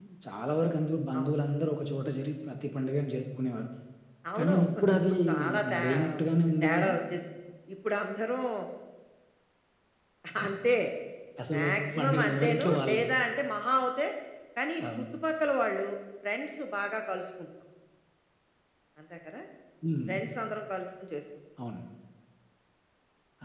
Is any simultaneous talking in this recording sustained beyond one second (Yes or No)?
Yes